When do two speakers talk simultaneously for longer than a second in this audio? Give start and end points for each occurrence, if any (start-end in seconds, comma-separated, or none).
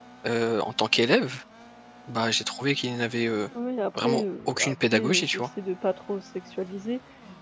4.0-5.5